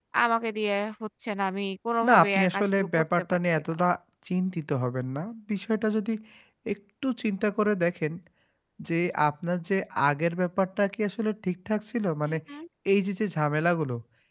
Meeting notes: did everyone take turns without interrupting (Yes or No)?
No